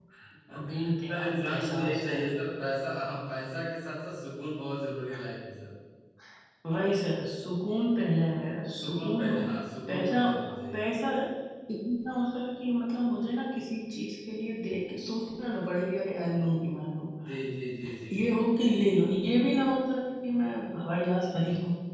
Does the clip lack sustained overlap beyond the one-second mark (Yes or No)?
No